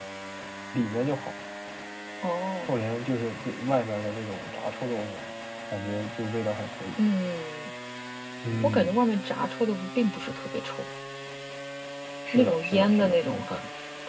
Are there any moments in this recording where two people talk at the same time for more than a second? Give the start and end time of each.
12.3-13.6

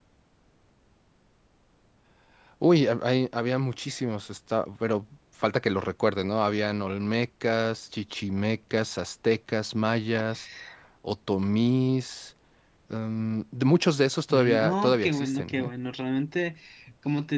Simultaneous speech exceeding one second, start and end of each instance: 14.3-15.7

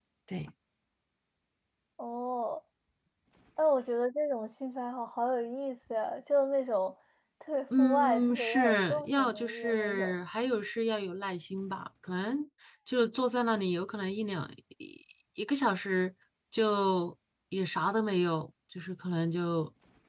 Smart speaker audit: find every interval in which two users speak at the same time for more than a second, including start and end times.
7.8-10.1

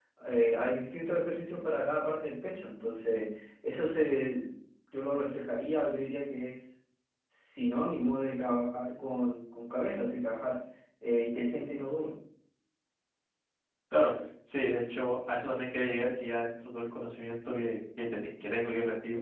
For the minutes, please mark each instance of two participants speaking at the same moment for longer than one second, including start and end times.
none

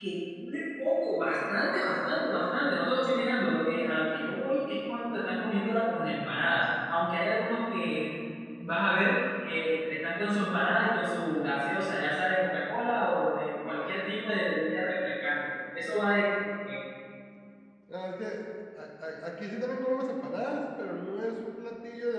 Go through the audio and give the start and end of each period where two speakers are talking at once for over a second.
none

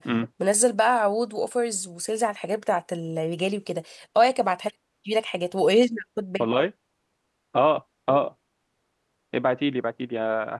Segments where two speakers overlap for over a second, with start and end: none

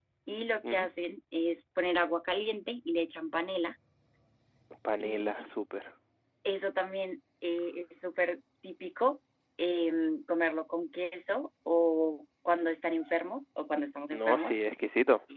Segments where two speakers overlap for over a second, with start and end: none

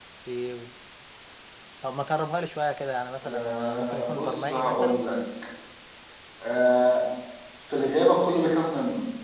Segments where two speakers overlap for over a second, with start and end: 3.2-5.0

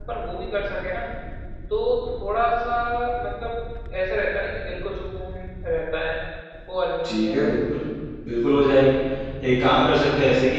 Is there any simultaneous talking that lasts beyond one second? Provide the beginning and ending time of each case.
none

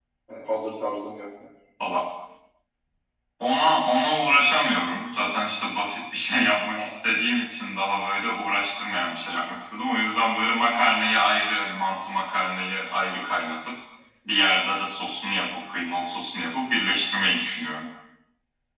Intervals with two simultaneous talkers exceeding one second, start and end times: none

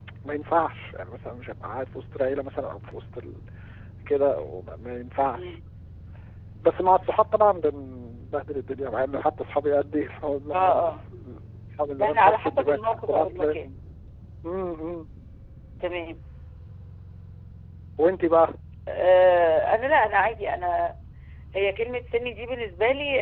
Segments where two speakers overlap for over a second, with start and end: 12.0-13.6

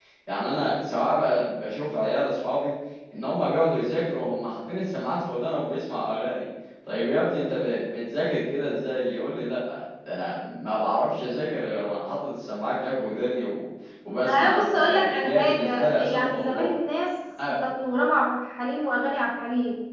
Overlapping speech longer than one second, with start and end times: 14.2-16.7

